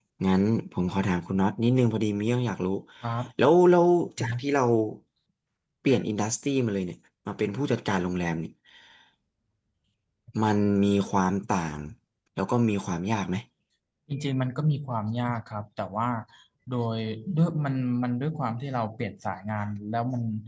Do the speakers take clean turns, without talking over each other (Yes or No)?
Yes